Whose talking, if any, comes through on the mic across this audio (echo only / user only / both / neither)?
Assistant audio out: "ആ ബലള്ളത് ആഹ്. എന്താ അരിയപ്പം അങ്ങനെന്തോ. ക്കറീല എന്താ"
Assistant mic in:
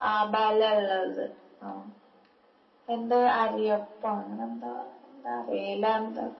echo only